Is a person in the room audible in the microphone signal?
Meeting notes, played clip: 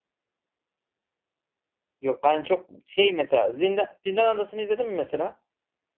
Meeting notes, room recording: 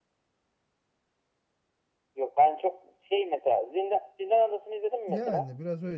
Yes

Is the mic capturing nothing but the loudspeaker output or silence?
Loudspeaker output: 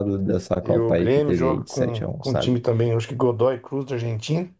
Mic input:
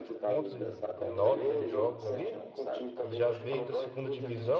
No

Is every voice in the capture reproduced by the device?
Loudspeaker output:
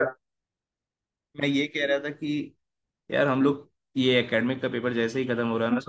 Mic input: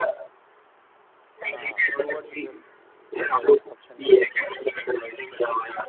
No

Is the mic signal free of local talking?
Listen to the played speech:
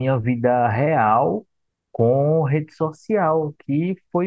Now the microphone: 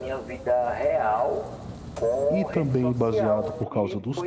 No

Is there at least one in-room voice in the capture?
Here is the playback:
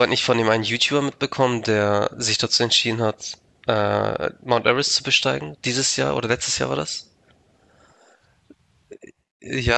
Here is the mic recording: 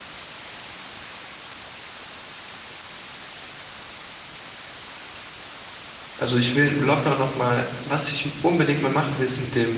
Yes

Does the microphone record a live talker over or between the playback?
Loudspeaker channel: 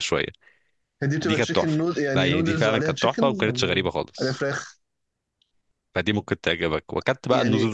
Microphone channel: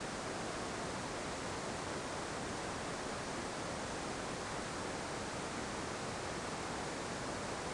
No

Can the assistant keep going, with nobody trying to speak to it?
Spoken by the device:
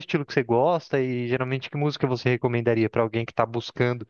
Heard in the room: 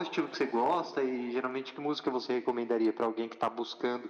Yes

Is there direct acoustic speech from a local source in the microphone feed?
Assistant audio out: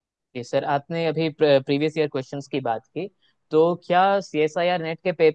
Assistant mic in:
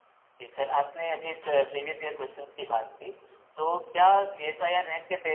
No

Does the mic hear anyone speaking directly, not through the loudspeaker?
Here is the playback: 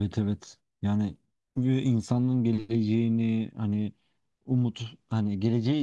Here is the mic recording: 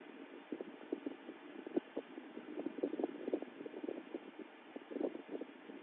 No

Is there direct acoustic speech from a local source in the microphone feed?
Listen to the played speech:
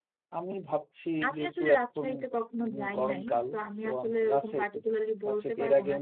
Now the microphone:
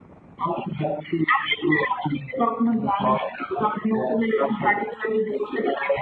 No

